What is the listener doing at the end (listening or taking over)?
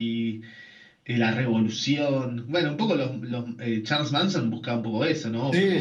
taking over